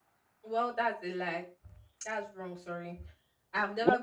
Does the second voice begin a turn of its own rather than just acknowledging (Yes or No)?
Yes